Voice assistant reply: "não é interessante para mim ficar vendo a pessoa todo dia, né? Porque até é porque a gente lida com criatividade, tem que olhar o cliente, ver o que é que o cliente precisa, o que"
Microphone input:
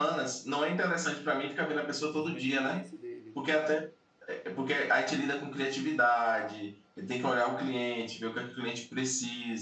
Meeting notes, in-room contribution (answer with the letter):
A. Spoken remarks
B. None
A